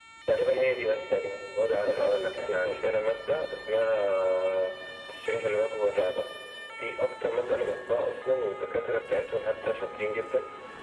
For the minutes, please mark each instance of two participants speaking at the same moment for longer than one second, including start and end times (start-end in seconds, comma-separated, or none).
1.6-3.0